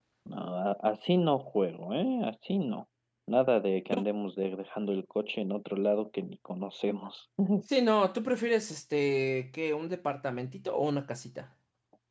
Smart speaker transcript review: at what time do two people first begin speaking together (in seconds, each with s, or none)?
none